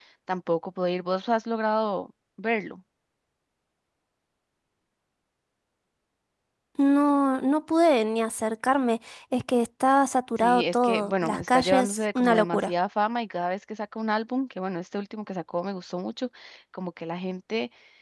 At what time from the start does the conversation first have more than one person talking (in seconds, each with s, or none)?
10.4 s